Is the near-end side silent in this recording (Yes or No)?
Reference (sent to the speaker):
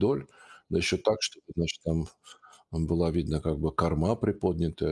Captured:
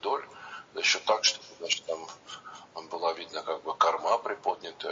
Yes